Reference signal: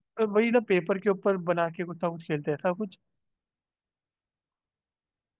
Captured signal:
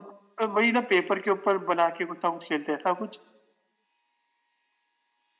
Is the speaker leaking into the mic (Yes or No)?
Yes